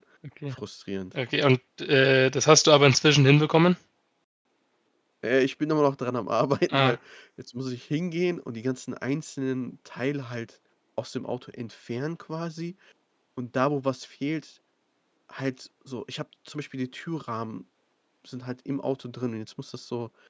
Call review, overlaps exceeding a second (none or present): none